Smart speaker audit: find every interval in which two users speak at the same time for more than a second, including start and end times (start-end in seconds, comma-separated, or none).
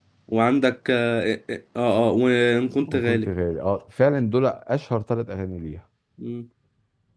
none